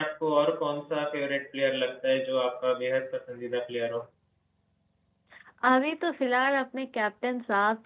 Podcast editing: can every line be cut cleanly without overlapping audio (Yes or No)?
Yes